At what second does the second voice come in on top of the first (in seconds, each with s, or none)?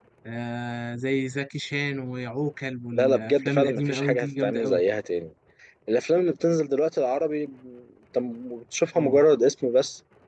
3.0 s